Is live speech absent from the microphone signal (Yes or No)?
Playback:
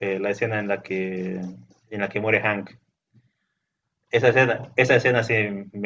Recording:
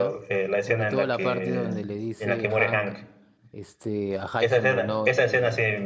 No